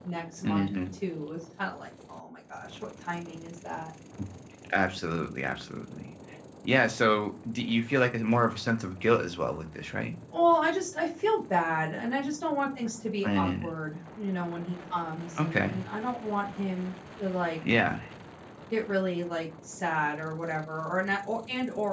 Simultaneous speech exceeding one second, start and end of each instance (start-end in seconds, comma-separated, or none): none